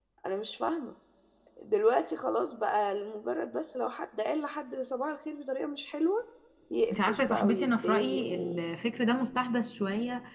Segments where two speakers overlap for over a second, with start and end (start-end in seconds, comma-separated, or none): 6.9-8.6